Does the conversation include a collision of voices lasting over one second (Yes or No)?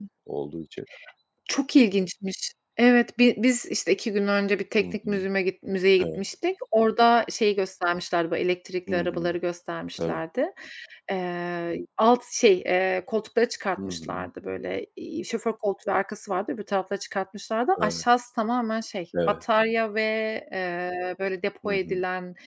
No